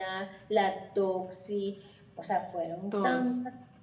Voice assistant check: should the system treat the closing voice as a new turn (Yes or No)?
No